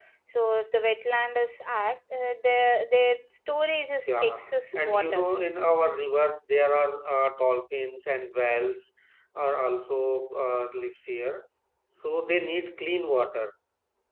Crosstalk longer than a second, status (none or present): present